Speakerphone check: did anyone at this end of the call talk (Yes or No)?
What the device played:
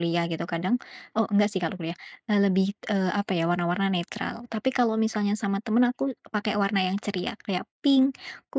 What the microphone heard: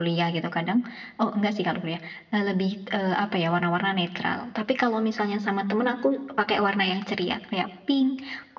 No